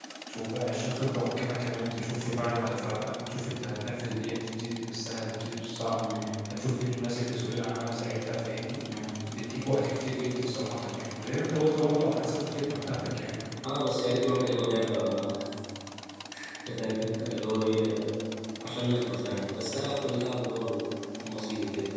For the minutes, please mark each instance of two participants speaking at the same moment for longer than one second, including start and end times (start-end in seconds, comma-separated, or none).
none